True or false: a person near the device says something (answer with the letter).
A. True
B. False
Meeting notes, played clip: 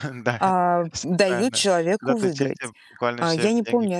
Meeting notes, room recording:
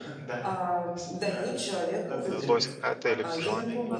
A